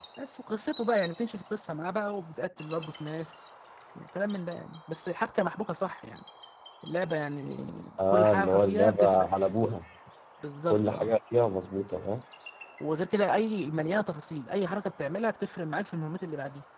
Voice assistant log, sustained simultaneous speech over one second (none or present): present